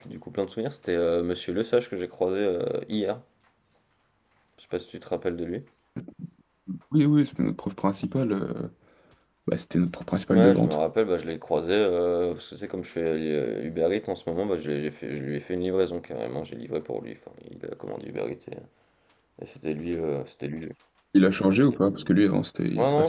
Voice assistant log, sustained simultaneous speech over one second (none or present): none